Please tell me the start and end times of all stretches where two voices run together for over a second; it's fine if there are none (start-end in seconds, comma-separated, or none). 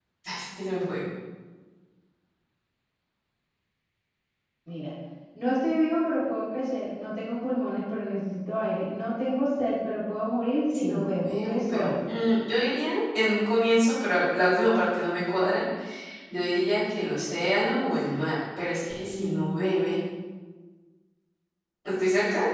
10.8-12.0